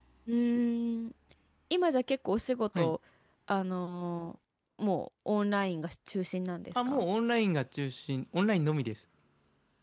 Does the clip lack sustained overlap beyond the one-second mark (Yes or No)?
Yes